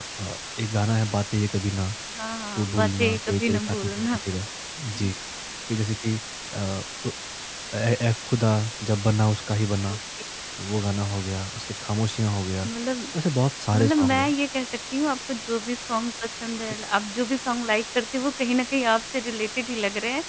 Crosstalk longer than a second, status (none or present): present